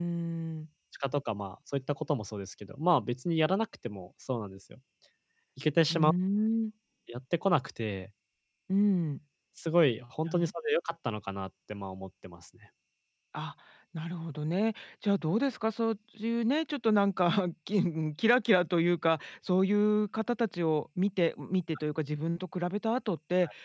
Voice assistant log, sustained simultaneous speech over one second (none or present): none